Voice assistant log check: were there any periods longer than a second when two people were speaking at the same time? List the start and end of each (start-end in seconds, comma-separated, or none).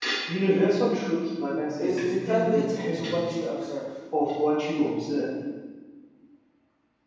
1.8-3.2